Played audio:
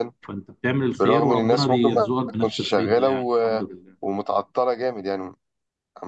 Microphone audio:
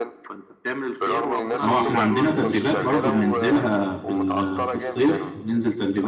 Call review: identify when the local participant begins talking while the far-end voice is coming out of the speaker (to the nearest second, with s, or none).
2 s